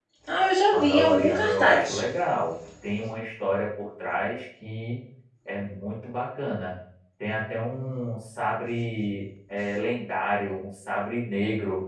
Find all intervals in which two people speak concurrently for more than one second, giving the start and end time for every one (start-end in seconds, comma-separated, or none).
0.7-2.0